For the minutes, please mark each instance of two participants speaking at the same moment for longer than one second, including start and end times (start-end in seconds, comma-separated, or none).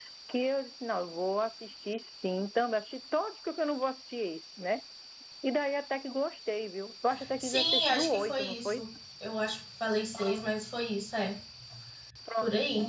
7.4-8.8